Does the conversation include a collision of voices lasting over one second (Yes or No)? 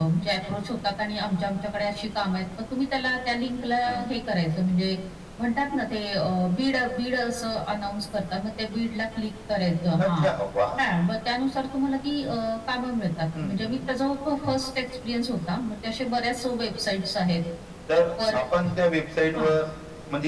No